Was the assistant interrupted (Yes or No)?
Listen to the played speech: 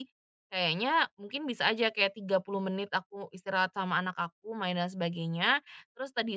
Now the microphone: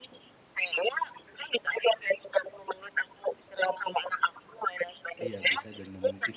Yes